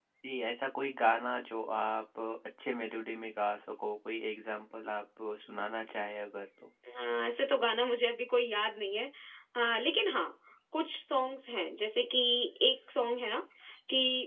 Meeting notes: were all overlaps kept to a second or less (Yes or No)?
Yes